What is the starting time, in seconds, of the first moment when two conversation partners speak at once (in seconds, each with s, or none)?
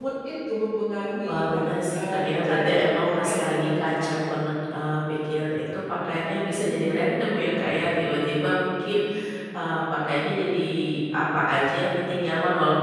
1.3 s